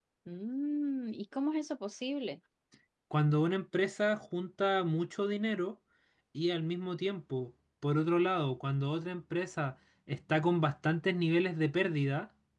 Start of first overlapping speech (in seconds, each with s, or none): none